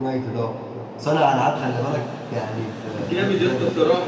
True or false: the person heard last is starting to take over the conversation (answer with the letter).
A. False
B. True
B